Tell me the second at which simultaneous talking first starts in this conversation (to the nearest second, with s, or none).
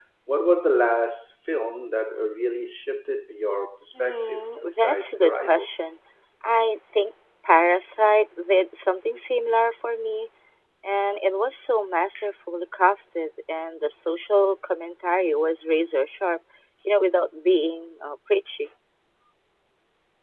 4 s